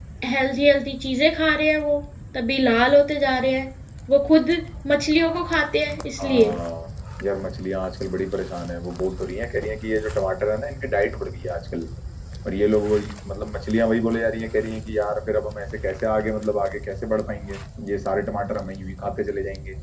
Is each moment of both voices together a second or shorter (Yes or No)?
Yes